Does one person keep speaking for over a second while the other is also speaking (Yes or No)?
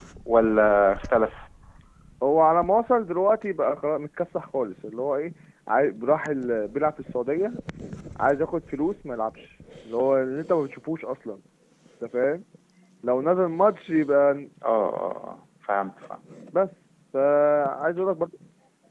No